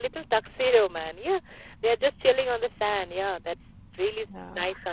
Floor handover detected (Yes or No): Yes